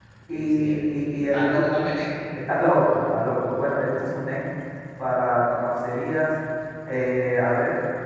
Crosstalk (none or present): present